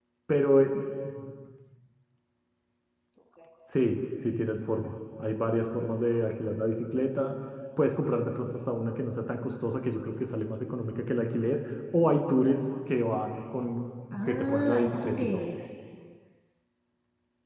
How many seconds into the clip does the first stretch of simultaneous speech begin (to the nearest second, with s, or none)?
14 s